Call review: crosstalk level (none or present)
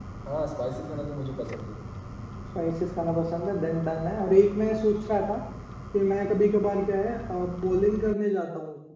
none